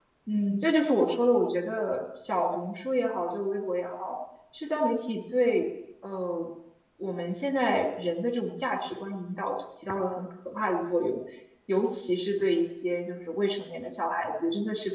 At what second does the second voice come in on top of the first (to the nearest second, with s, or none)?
none